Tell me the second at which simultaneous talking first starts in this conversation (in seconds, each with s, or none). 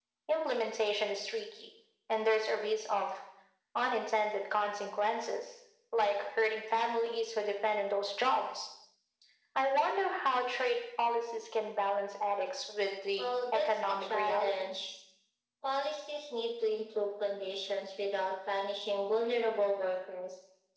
13.2 s